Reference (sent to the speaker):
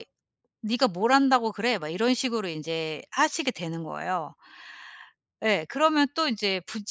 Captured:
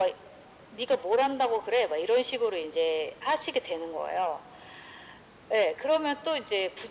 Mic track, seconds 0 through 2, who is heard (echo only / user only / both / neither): echo only